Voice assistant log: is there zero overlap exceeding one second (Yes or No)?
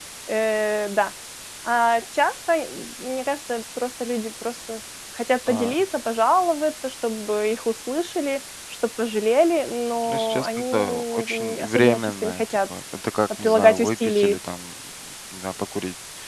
No